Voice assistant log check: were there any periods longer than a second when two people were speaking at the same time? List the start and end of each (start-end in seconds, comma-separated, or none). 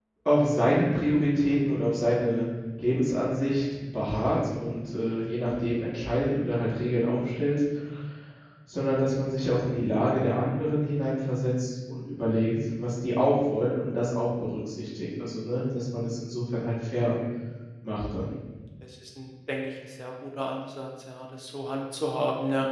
none